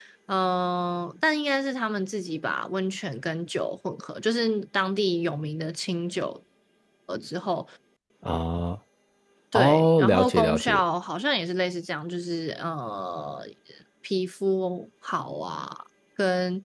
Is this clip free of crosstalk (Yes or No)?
No